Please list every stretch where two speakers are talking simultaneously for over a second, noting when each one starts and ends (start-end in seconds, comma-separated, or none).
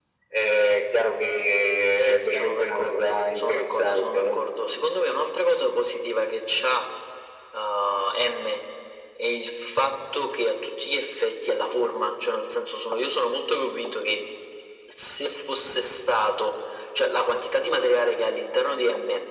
1.9-4.4